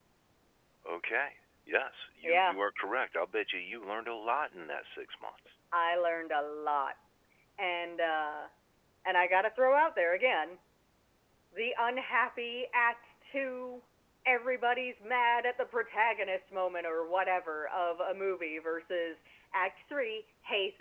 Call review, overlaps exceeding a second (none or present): none